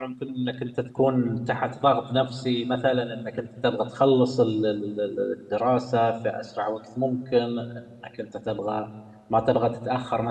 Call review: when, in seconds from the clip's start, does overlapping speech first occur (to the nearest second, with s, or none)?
none